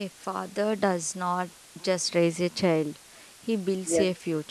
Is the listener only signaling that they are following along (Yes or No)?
No